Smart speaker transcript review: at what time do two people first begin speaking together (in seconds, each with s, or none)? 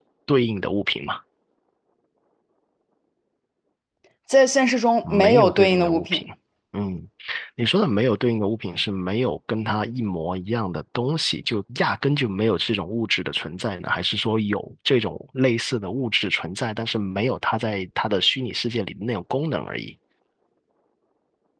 5.0 s